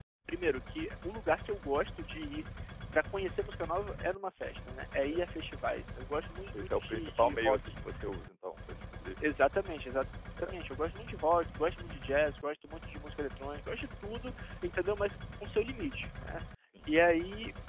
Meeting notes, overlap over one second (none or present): present